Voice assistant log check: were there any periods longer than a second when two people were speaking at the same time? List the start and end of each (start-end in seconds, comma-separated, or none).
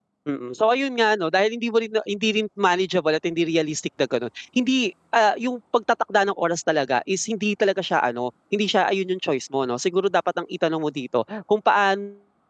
none